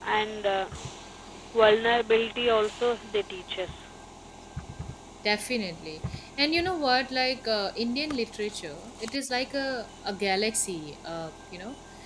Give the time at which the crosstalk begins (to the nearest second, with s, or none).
none